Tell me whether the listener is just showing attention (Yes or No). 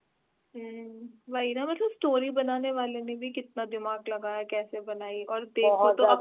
Yes